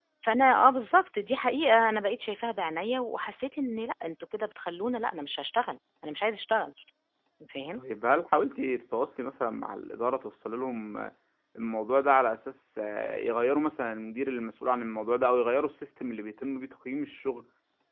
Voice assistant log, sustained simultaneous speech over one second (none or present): none